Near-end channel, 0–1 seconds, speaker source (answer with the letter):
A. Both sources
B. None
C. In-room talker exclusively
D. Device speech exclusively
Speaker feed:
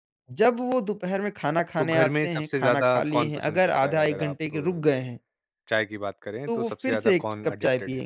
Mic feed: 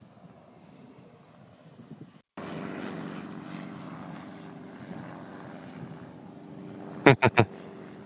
B